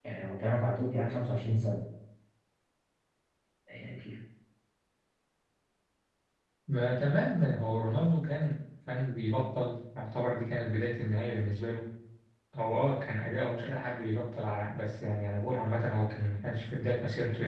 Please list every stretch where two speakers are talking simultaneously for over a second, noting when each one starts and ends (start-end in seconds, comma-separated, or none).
none